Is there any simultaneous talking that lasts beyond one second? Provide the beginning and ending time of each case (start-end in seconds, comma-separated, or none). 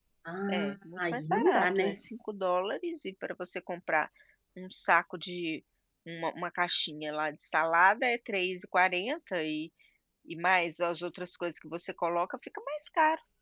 0.5-2.0